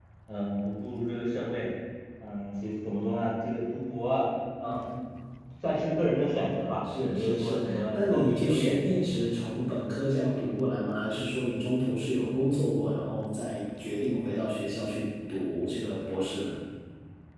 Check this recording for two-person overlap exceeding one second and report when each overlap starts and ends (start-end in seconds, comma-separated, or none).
7.0-9.1